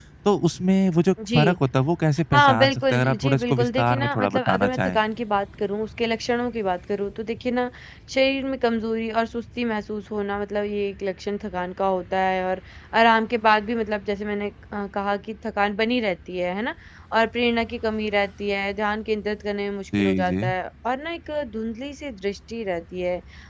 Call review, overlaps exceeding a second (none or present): present